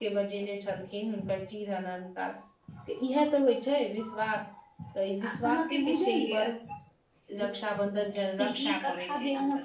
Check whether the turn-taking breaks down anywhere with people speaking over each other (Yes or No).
Yes